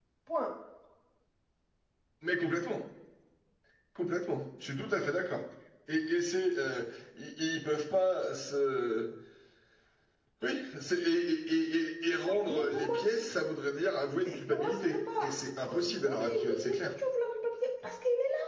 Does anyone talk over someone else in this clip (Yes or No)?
Yes